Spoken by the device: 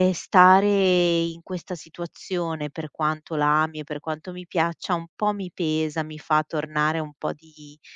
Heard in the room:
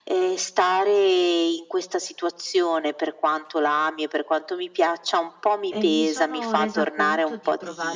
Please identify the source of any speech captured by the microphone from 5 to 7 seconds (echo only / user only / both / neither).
both